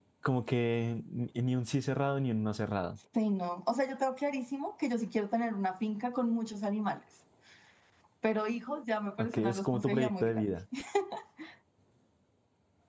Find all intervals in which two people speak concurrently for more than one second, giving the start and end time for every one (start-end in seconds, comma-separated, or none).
9.2-10.5